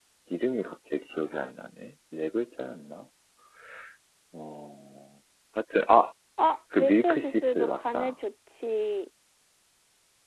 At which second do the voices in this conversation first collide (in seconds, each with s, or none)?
6.8 s